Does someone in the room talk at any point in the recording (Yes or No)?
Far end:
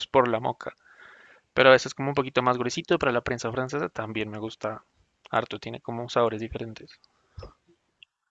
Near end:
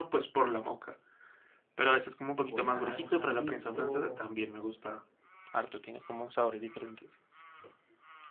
Yes